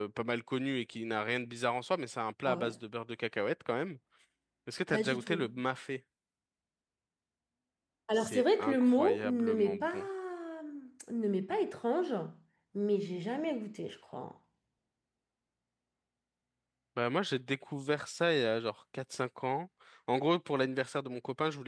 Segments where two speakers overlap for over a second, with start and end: 8.2-9.8

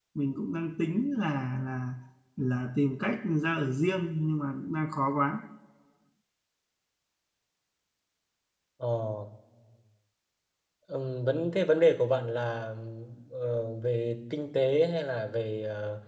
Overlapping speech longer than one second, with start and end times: none

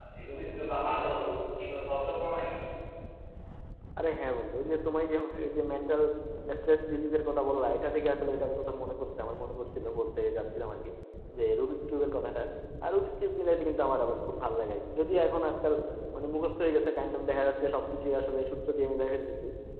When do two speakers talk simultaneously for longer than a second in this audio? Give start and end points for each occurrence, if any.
none

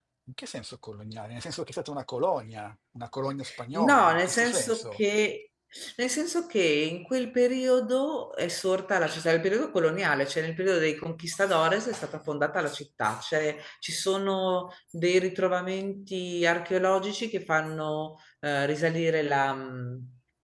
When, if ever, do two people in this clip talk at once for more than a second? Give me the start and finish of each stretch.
3.7-5.0

